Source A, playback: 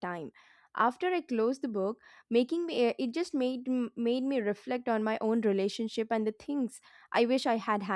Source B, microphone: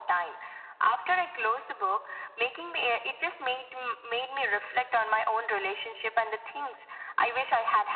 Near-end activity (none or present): none